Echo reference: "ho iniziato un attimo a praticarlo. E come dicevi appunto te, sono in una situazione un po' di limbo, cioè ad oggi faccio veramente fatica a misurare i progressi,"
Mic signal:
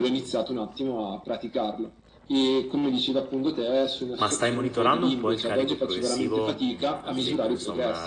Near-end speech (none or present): present